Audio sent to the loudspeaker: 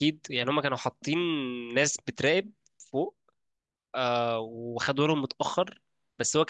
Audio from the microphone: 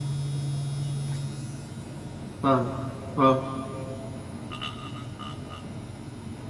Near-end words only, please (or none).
فاهم اه